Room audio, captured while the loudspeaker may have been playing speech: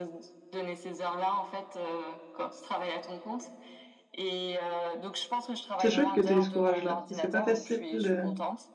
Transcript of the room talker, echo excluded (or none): C'est chouette que tu aies eu ce courage-là, parce que c'est pas facile de,